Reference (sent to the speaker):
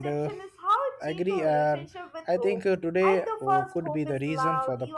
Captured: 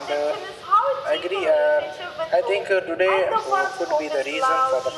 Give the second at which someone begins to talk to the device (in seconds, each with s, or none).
none